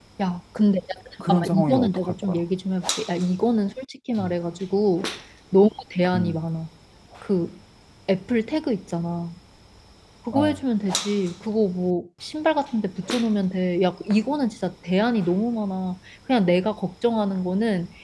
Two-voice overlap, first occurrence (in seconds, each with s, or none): 1.2 s